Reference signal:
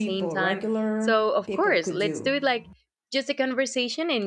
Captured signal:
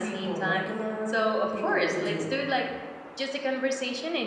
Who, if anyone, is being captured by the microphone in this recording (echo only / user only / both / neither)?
echo only